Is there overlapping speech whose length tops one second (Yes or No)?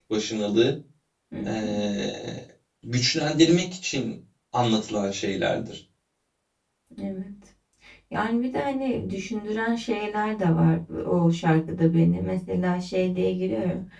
No